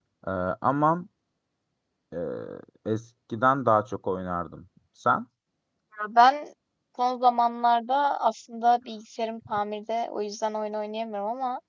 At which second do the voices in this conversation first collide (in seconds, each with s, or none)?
none